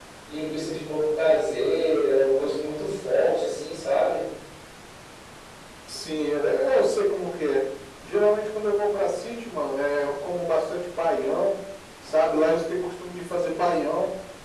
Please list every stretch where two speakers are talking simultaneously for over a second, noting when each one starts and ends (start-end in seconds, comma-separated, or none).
none